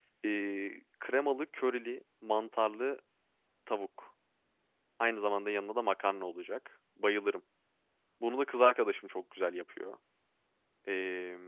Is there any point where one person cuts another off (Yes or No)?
No